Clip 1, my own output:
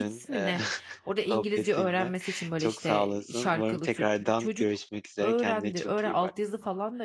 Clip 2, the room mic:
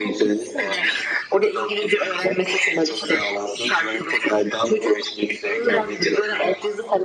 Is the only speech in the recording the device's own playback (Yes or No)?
Yes